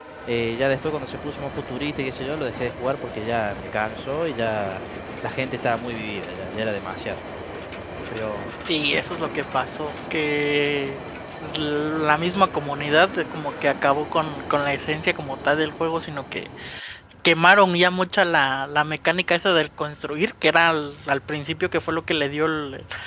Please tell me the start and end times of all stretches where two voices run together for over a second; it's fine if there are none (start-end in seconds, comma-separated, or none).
none